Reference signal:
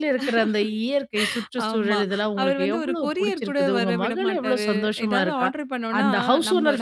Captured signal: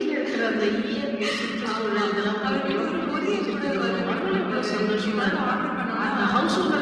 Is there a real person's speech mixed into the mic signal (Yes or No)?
No